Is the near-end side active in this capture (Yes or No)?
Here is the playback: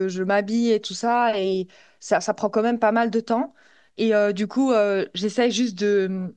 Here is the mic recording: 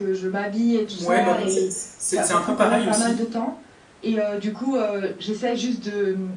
Yes